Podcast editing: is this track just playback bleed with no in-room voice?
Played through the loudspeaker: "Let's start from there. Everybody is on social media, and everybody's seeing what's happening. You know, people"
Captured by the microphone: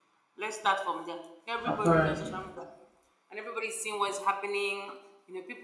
No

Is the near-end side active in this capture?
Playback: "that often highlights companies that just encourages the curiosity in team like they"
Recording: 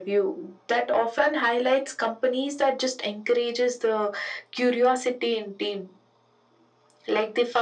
No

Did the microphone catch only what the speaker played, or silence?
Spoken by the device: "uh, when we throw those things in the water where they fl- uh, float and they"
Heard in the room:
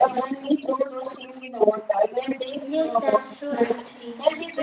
No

